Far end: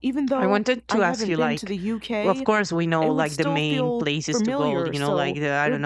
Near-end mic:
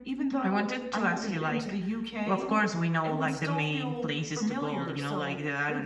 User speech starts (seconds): none

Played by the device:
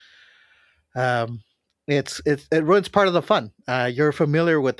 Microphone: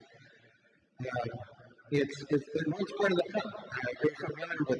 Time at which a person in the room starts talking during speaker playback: none

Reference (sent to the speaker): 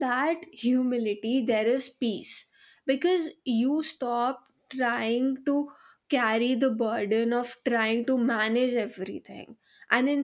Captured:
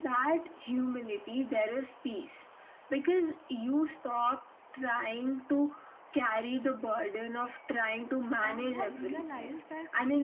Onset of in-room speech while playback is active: 8.5 s

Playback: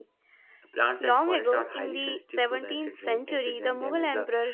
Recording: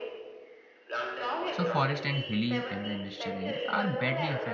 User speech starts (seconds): 1.5 s

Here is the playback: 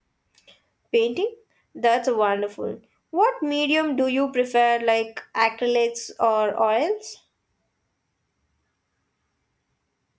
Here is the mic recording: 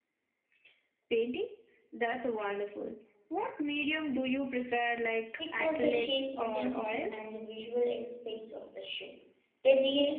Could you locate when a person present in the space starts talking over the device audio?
5.4 s

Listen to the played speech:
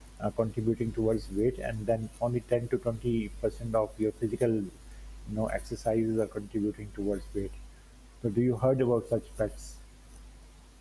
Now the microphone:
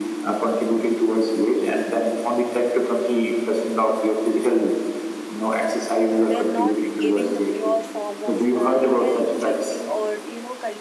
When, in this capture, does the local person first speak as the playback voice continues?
6.2 s

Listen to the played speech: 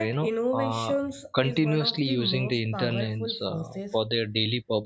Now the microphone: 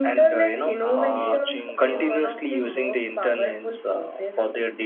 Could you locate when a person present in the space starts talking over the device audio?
0.9 s

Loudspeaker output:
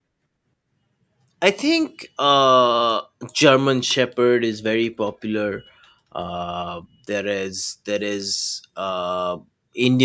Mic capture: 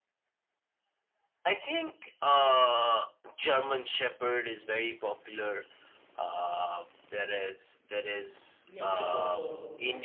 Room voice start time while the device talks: 8.7 s

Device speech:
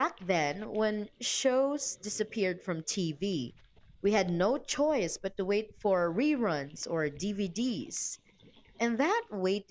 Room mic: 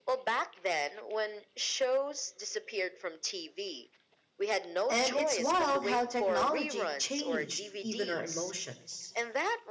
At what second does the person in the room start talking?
4.9 s

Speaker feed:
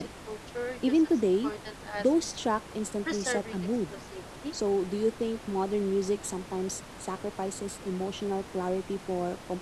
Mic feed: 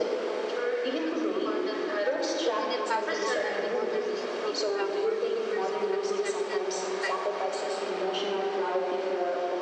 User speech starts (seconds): 2.4 s

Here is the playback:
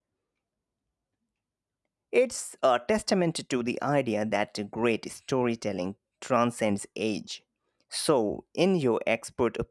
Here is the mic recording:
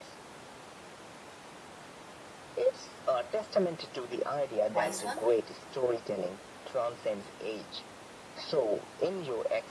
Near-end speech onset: 4.7 s

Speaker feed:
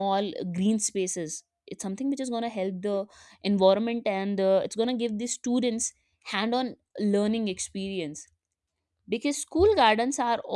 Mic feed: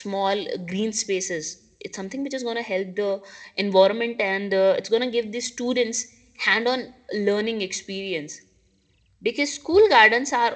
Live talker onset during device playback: none

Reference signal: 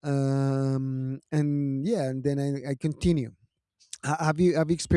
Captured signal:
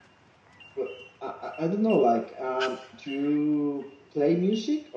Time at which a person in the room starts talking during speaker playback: 0.7 s

